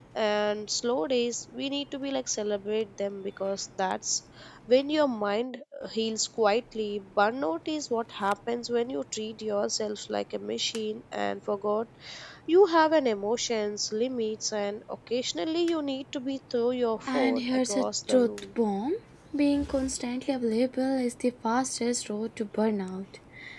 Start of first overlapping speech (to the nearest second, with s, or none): 17 s